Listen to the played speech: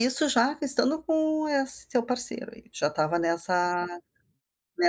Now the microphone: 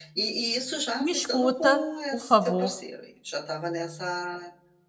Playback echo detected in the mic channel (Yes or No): Yes